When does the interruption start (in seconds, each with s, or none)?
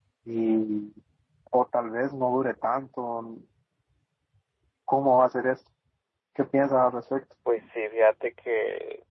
none